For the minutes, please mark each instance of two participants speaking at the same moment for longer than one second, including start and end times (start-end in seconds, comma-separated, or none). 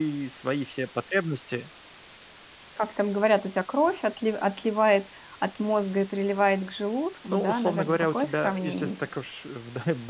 7.2-9.1